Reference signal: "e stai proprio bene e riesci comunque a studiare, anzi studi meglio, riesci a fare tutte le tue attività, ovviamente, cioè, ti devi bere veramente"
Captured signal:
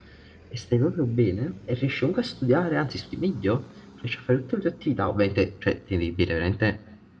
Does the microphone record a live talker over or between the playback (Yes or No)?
No